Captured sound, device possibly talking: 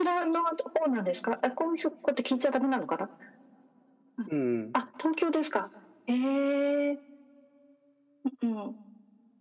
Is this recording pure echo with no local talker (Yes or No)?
No